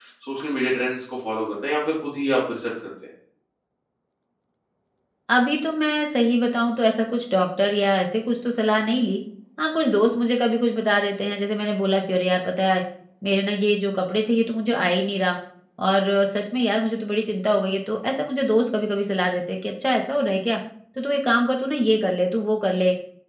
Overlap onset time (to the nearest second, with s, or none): none